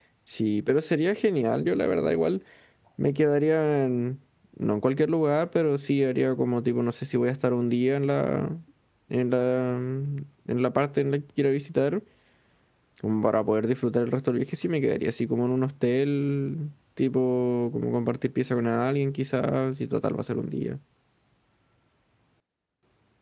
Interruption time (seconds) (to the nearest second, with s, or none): none